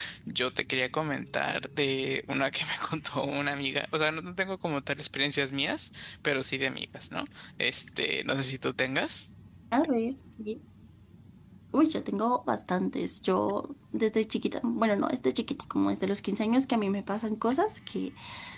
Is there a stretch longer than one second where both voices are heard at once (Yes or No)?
No